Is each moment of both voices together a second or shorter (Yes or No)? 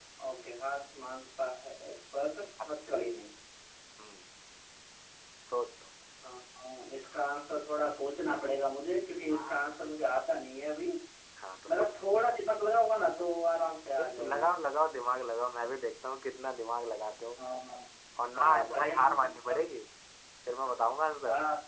No